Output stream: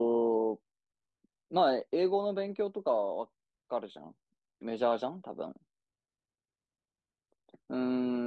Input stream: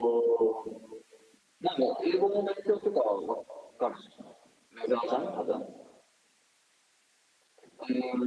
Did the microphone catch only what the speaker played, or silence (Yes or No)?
Yes